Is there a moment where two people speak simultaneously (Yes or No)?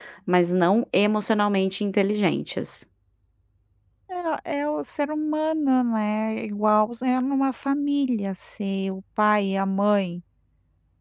No